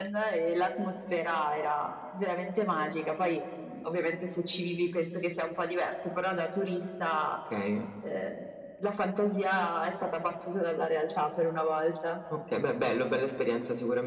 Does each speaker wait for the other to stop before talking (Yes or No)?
Yes